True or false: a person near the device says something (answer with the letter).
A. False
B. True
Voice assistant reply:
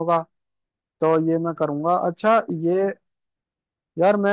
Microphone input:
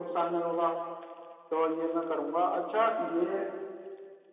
A